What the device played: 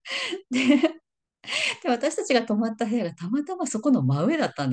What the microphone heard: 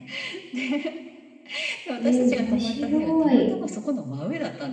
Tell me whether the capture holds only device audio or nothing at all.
No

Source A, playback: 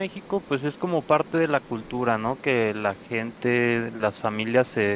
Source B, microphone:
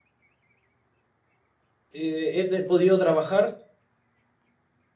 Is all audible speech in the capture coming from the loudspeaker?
No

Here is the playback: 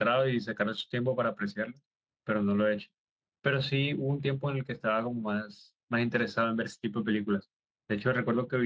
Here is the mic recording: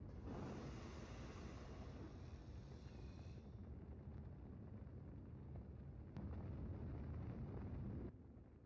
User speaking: No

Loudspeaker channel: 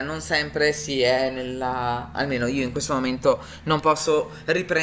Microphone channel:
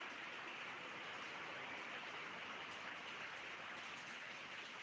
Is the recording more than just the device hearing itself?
No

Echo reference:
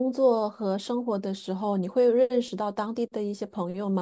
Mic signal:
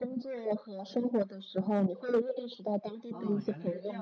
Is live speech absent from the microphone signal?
No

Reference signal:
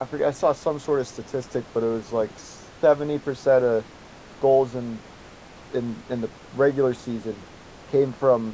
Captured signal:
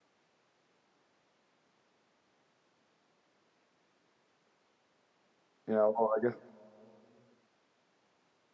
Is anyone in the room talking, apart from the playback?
Yes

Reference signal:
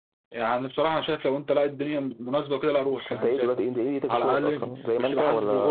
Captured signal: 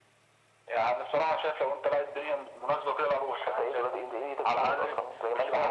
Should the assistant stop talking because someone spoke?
No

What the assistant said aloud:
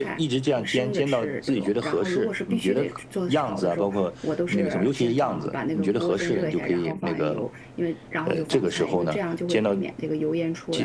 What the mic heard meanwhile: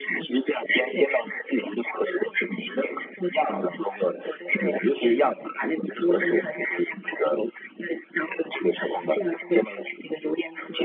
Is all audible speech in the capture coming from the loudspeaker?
Yes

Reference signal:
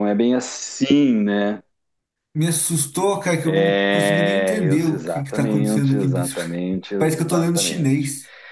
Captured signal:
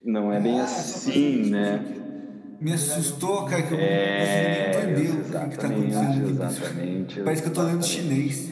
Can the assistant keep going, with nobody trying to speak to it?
No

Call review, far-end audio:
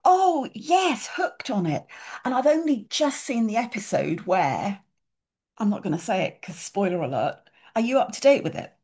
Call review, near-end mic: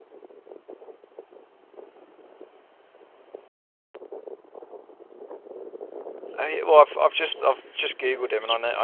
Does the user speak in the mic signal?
Yes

